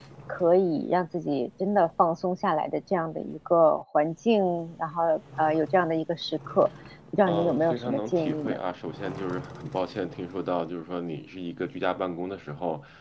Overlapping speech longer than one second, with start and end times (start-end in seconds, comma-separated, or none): 7.3-8.6